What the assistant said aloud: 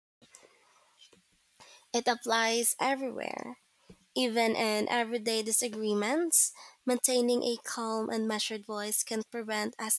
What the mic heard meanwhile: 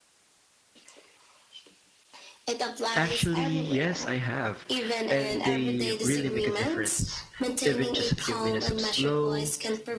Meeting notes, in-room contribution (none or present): present